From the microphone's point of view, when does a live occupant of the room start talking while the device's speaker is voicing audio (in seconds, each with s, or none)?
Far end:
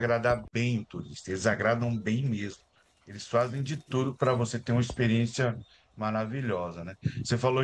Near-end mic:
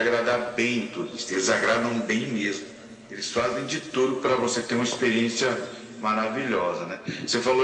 none